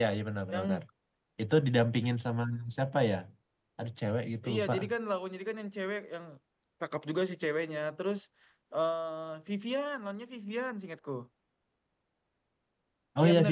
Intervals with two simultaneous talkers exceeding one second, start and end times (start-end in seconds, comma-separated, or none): none